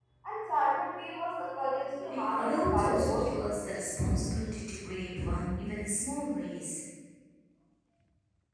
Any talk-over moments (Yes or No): Yes